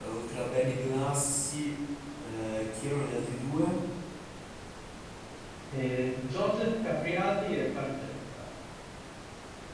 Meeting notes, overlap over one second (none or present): none